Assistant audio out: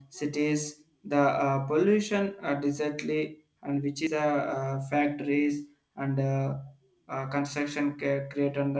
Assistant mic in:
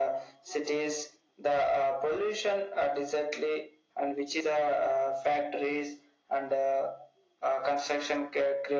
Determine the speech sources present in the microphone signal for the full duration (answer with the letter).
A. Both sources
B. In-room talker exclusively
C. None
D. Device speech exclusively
D